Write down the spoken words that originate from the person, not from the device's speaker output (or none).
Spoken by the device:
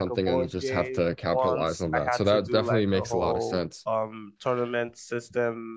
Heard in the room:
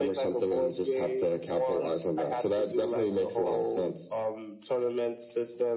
none